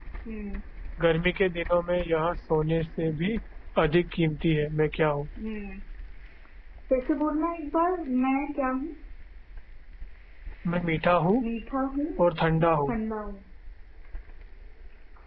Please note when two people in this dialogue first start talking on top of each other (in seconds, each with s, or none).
none